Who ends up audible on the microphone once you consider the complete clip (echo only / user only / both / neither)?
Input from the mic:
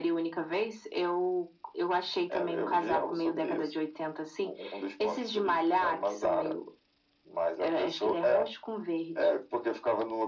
echo only